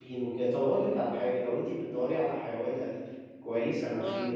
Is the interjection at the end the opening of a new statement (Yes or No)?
No